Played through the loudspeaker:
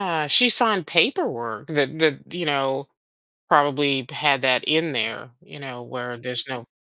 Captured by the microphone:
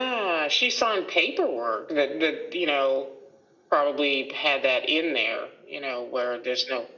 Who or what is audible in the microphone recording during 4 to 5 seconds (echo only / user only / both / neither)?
echo only